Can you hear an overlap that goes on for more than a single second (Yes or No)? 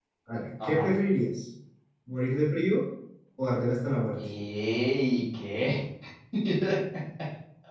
No